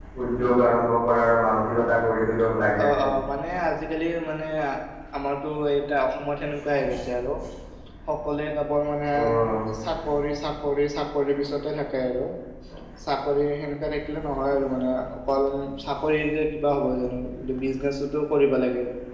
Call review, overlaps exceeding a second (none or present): none